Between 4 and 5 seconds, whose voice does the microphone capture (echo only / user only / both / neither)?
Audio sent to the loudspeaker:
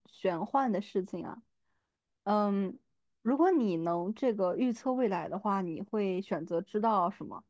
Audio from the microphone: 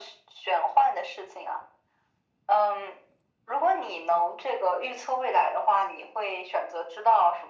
echo only